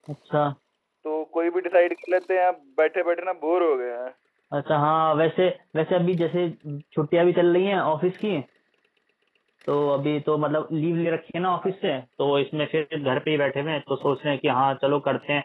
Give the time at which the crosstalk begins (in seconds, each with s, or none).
none